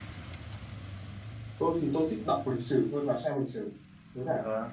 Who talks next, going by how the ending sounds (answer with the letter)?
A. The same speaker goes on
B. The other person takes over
B